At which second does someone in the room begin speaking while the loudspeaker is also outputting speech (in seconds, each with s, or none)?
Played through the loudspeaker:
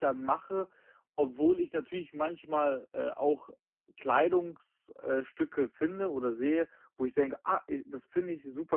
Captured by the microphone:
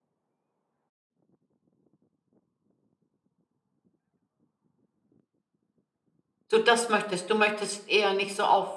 6.5 s